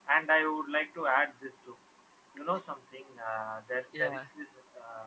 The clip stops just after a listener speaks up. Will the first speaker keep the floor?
Yes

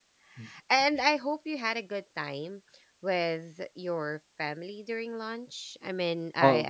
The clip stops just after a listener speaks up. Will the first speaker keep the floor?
Yes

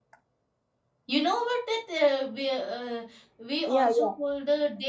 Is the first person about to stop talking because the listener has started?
No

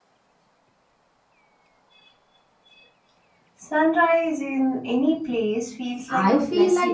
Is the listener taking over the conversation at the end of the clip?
Yes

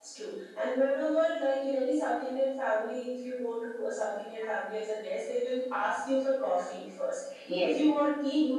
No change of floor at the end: Yes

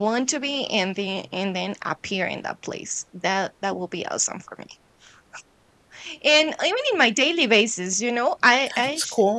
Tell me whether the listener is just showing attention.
Yes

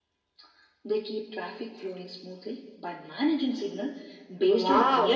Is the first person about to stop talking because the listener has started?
Yes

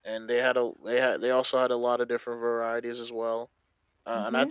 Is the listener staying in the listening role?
Yes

